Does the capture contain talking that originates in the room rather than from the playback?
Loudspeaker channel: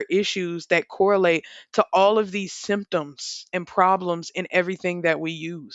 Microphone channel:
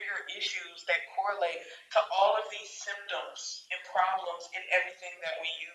No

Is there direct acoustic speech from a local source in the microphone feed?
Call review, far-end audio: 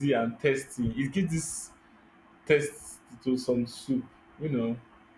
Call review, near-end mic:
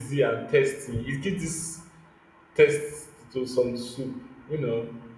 No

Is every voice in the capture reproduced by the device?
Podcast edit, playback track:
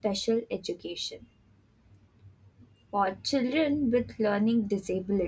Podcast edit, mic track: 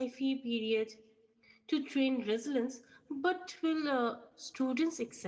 No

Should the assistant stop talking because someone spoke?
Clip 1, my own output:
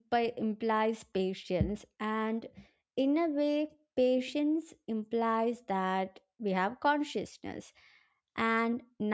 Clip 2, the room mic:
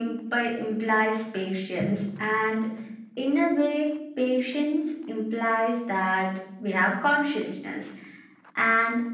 No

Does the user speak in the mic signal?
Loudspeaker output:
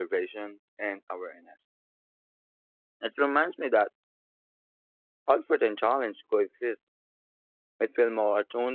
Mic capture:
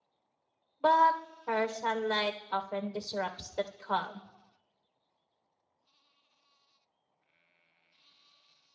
Yes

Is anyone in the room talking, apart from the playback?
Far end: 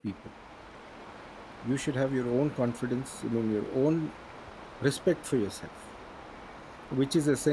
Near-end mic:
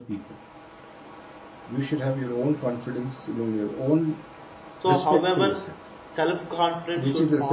Yes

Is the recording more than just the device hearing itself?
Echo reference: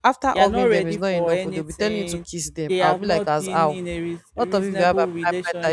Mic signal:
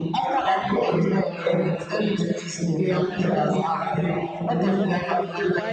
Yes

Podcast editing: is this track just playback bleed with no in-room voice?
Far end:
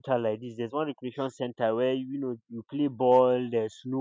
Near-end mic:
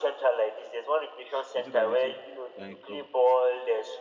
No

